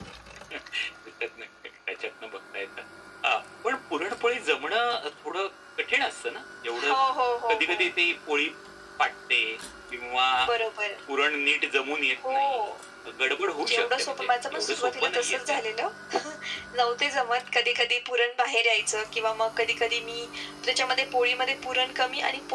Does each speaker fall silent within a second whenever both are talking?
No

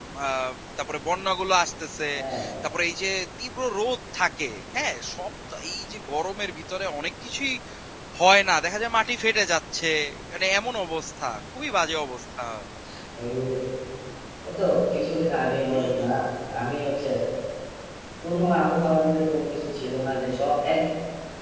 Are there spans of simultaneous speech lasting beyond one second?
No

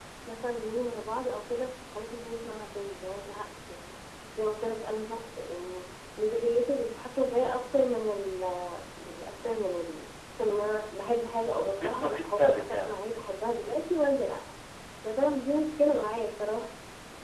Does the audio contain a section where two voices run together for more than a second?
Yes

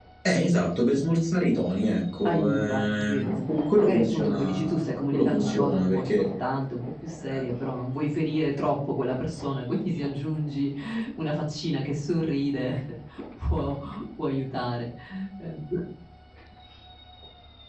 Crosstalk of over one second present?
Yes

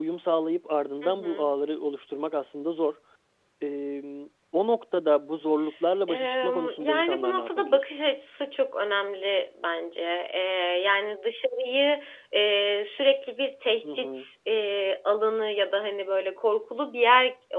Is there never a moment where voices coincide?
No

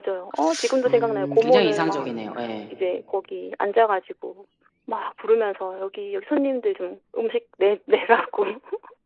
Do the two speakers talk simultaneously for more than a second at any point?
Yes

